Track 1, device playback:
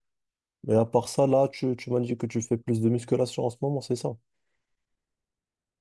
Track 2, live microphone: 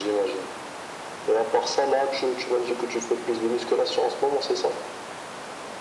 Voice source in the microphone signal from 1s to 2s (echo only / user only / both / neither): echo only